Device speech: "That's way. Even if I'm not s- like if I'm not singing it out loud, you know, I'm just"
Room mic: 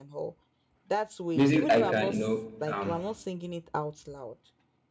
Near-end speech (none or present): present